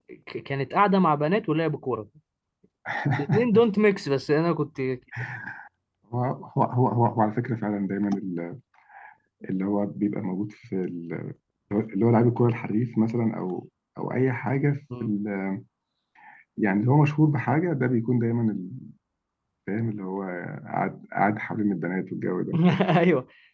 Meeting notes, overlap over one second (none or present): none